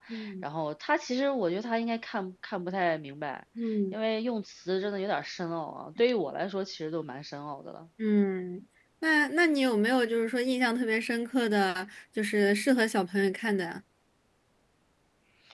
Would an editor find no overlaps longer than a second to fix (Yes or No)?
Yes